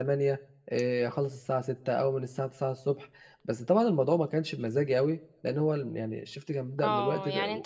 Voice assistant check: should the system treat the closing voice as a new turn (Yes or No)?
Yes